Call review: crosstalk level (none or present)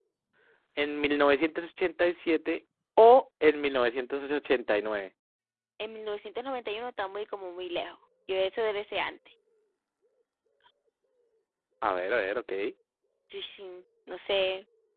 none